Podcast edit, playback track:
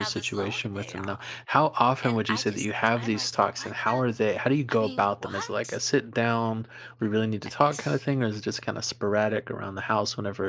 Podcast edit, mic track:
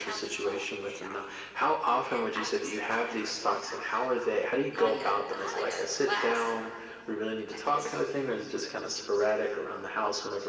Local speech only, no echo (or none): like a like a glass